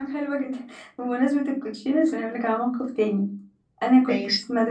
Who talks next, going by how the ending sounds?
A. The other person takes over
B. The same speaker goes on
B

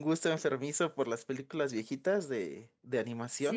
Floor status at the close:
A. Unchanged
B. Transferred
B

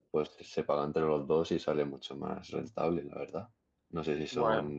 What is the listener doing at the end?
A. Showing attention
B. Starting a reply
A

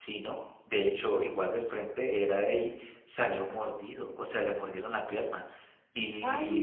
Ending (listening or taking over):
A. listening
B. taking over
A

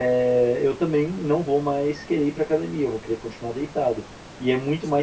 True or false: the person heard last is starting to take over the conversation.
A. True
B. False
A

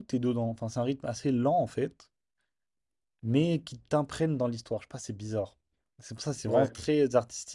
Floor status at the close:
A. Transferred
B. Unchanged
B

